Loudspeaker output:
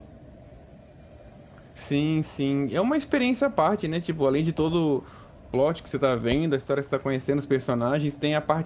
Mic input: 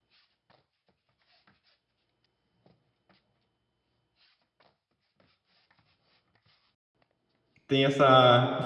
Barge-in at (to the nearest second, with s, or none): 8 s